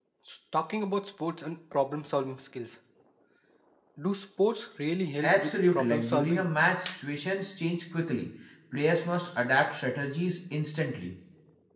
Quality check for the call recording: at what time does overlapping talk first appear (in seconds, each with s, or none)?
5.2 s